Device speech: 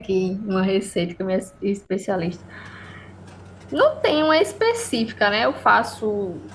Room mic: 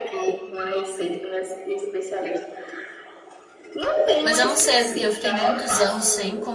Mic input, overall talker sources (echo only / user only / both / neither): both